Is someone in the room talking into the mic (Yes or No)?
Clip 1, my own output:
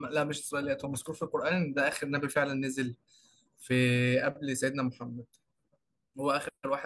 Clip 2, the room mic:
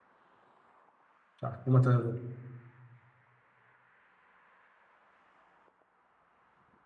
Yes